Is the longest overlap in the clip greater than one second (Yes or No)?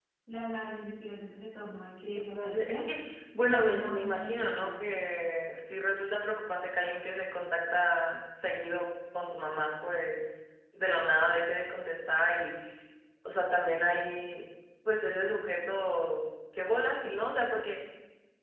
Yes